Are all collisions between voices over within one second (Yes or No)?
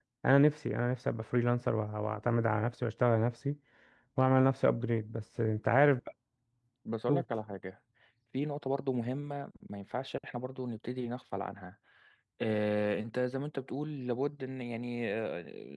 Yes